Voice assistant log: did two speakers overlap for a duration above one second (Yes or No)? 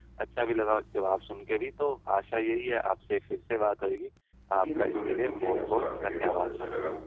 Yes